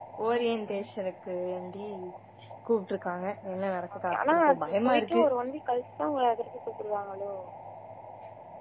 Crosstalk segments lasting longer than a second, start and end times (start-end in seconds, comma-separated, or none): 4.0-5.2